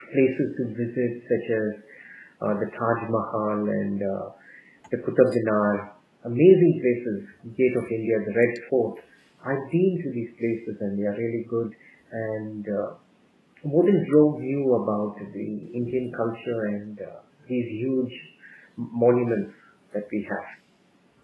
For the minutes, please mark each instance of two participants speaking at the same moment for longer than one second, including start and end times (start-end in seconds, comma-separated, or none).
none